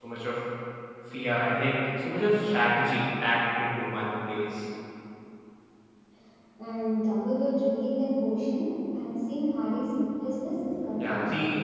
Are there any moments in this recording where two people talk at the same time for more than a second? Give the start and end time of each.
none

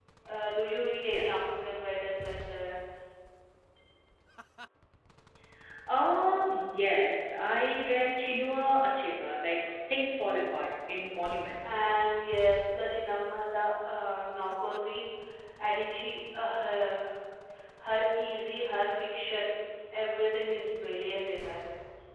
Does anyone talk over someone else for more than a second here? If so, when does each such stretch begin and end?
none

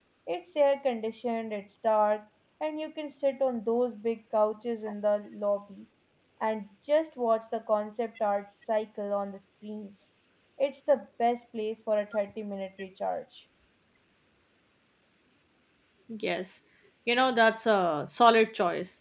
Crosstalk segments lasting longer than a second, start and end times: none

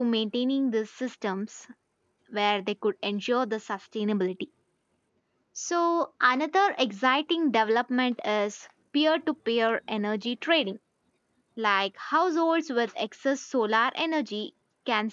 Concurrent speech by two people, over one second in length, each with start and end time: none

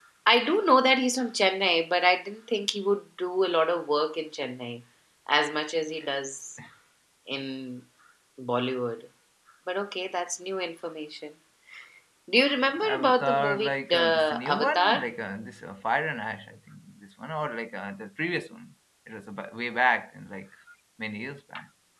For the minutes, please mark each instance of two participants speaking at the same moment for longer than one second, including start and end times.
12.8-15.1

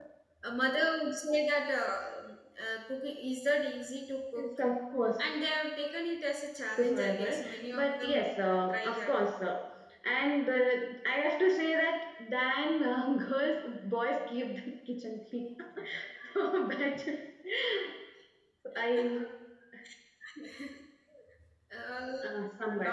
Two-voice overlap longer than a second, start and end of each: 6.8-8.2

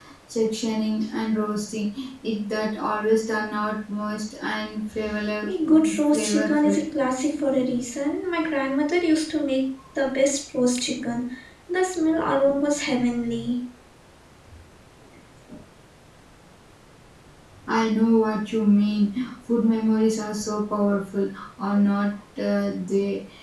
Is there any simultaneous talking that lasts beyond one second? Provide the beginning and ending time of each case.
5.5-6.8

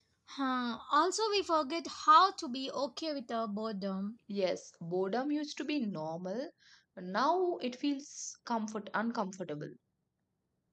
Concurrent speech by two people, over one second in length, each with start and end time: none

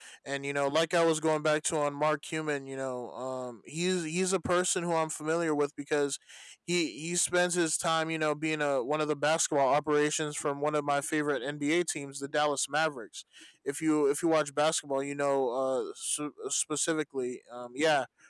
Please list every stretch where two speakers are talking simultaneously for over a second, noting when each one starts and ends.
none

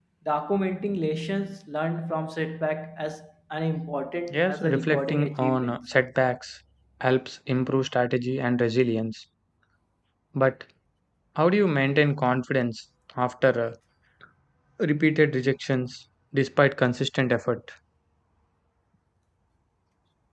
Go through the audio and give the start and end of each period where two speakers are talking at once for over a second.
4.3-5.8

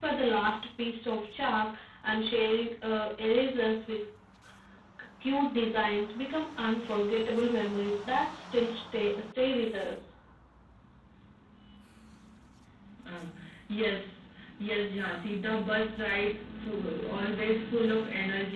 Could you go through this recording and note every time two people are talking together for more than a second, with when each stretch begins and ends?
none

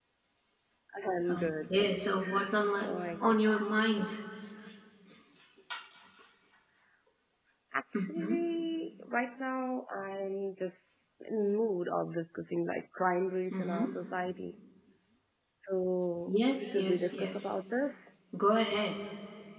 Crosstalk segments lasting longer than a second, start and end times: 16.3-17.6

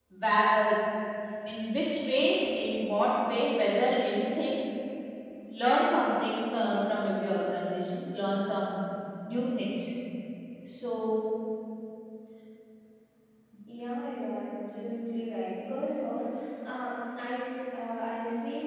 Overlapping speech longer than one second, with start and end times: none

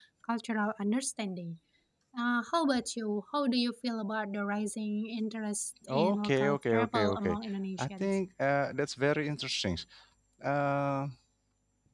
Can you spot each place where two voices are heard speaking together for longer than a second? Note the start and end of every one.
5.9-7.4

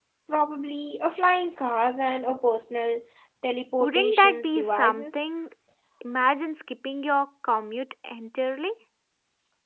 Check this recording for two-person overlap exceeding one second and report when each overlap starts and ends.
3.8-5.2

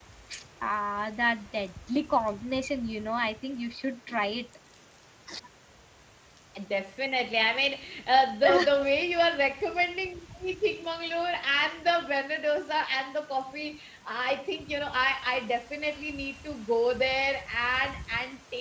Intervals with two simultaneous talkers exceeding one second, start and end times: none

